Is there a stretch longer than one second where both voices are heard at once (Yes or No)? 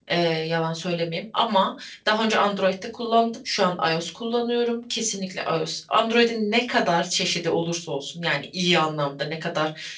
No